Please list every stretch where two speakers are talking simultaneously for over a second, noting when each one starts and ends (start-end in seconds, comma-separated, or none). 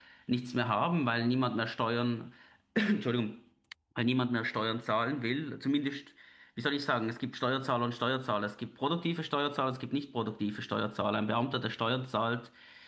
none